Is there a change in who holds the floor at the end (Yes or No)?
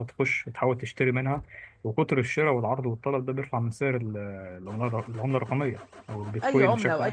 Yes